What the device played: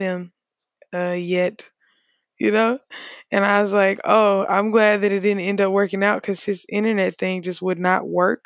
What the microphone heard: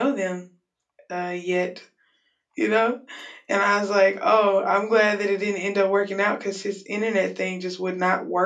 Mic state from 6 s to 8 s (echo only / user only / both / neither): echo only